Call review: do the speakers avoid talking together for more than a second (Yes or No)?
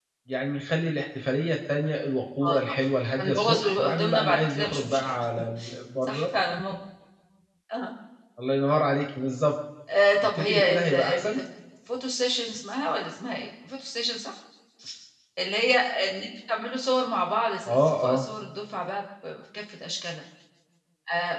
No